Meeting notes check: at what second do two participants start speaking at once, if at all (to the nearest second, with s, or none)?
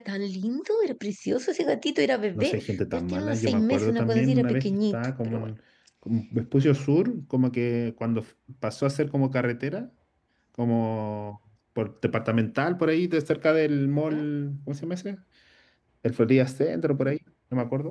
2 s